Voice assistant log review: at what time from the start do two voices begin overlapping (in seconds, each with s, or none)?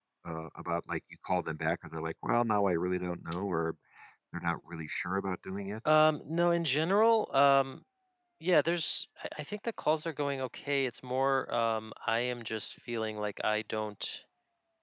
none